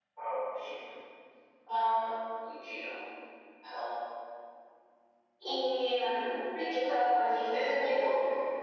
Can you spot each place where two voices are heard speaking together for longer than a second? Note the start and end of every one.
6.6-8.0

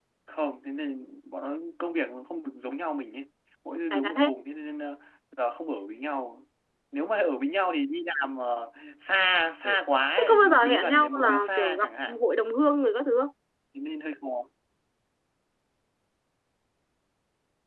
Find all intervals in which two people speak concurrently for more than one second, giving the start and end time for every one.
10.2-12.2

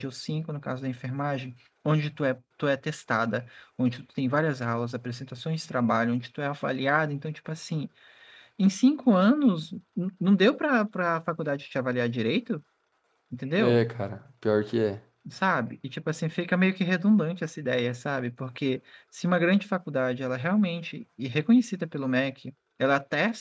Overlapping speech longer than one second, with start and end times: none

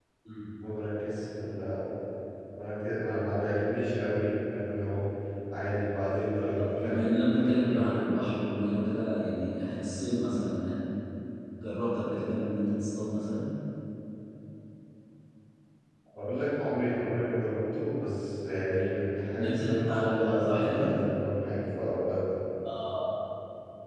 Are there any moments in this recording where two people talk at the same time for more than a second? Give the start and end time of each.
6.6-8.1, 19.3-20.9

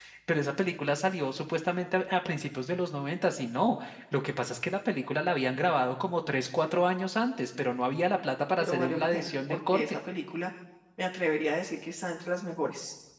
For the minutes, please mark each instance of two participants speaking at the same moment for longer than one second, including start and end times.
8.6-10.0

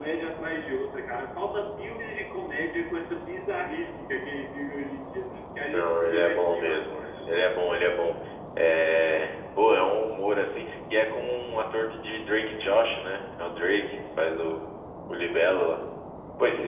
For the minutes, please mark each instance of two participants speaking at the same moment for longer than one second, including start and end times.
5.6-7.0

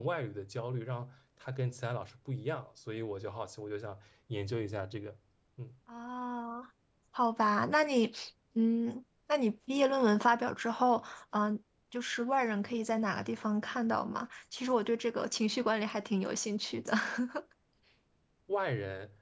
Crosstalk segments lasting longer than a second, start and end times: none

